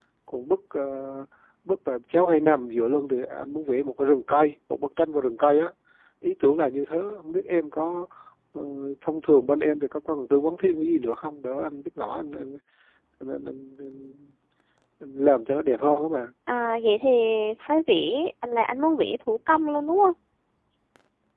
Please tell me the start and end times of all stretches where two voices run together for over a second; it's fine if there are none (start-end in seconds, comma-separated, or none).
none